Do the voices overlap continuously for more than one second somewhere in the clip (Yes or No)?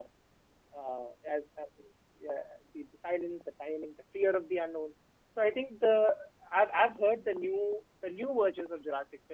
No